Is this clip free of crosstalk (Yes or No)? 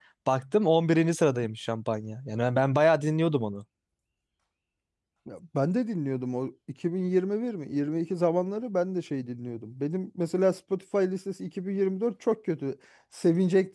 Yes